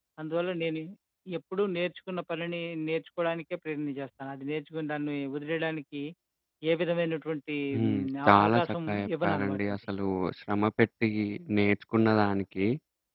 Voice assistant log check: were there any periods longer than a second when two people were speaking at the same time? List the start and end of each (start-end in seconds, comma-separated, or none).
7.7-9.8